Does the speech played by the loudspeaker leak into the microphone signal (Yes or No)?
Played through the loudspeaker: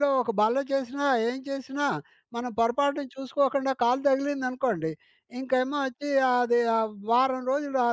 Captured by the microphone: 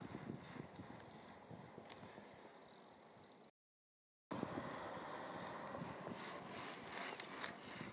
No